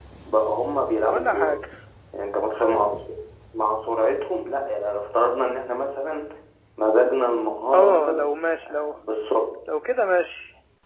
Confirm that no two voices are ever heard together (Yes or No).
No